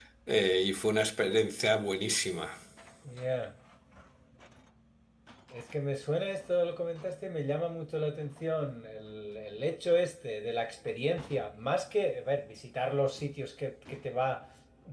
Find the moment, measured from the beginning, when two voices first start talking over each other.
none

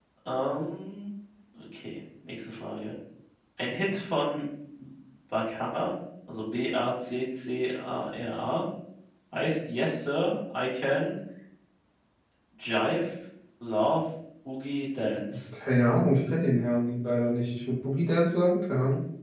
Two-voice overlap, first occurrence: none

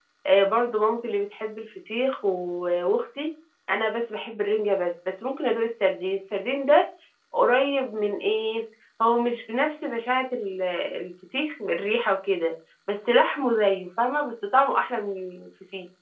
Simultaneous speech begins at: none

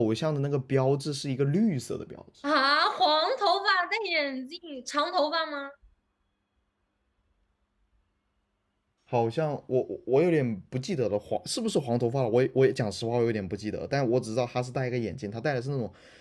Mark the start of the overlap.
none

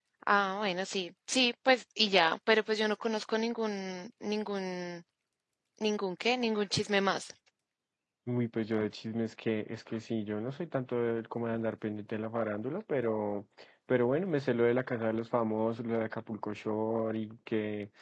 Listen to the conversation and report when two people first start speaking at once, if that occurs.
none

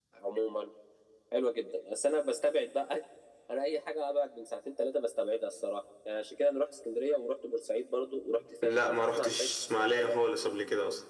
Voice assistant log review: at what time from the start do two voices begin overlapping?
9 s

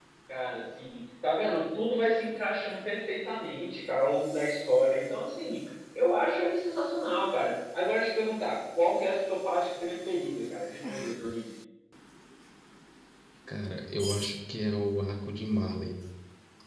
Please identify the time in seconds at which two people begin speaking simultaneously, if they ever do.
none

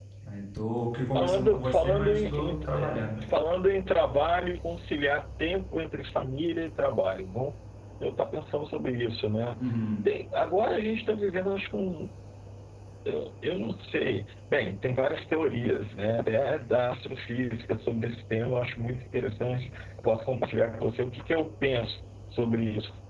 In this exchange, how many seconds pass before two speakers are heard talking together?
1 s

